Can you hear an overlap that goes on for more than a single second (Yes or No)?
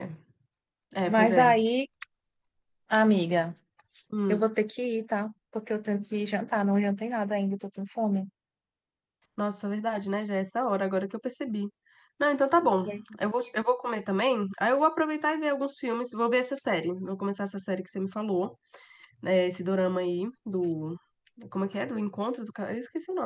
No